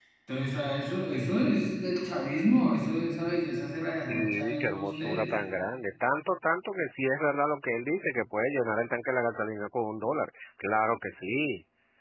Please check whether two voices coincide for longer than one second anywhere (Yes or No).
Yes